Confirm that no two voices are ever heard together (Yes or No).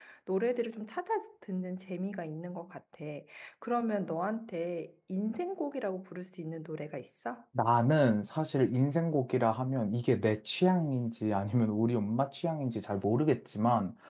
Yes